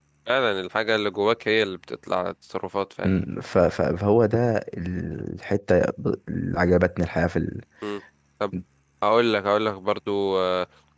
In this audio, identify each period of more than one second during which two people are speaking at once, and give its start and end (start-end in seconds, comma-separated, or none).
none